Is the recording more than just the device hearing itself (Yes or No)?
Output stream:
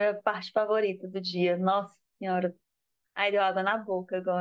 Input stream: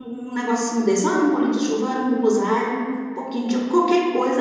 Yes